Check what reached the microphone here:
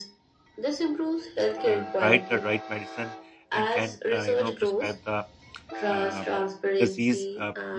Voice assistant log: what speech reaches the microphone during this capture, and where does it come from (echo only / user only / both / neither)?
both